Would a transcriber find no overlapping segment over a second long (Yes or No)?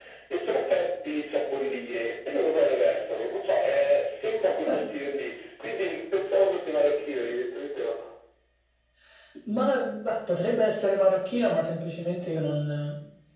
Yes